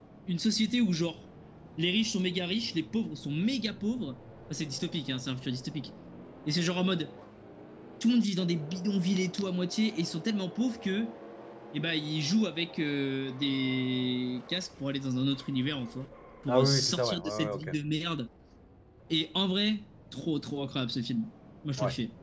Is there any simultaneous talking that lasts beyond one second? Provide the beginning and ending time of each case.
16.5-17.7

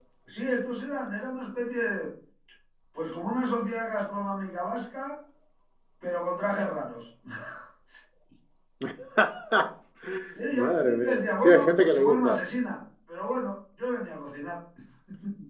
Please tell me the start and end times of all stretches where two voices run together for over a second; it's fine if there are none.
10.5-12.4

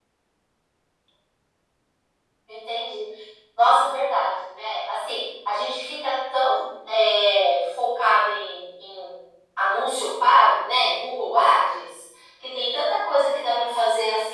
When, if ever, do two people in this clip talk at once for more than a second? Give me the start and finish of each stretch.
none

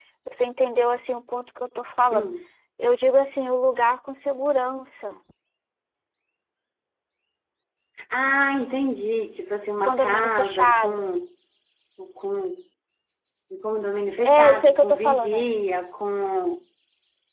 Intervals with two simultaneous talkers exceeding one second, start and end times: 9.8-11.0, 14.2-15.5

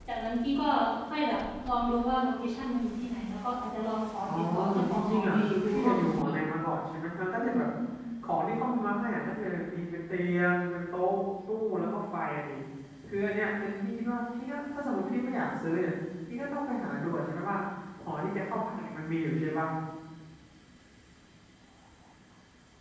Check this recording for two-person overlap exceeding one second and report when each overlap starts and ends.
4.5-6.3

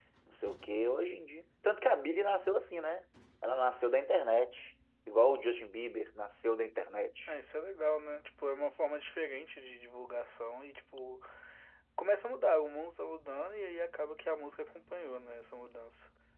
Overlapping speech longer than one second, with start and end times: none

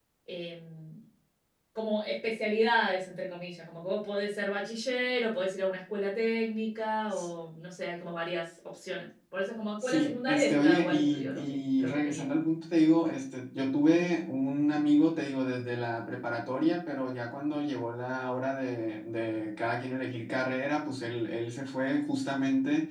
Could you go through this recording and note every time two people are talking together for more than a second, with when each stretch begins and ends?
9.8-12.2

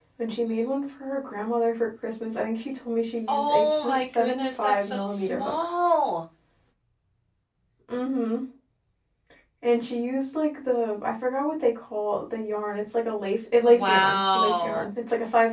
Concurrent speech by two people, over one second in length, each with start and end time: 3.3-5.5, 13.6-14.9

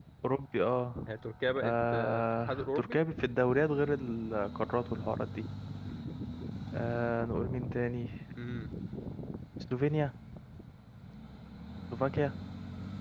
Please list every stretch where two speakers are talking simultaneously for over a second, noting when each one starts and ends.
1.6-3.0

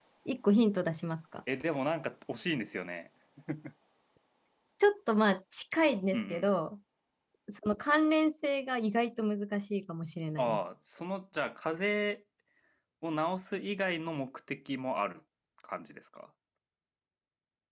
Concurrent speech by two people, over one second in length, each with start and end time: none

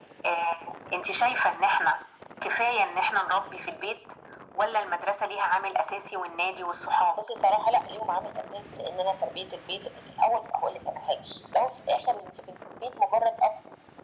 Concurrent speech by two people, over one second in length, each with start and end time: none

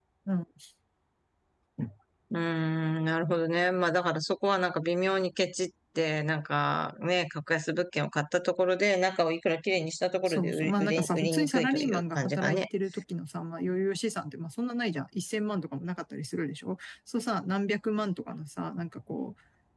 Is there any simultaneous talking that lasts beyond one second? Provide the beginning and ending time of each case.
10.3-12.6

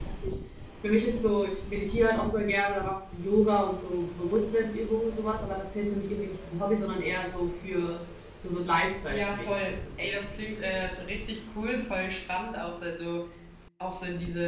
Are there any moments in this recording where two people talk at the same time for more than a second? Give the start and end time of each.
9.1-10.8

